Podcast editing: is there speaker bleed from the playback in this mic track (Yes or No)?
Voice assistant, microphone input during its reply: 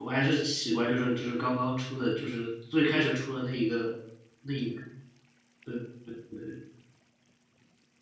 No